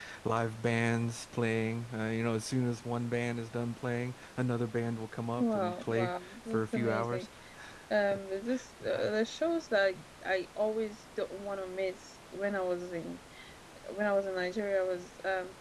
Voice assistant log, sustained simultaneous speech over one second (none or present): present